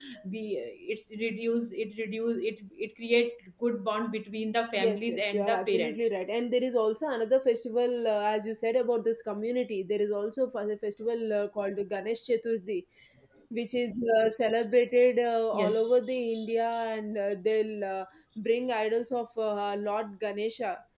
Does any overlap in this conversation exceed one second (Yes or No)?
Yes